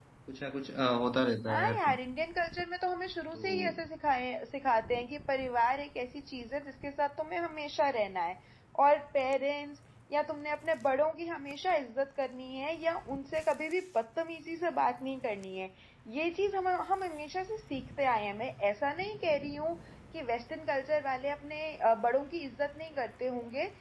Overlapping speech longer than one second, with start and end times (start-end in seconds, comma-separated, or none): none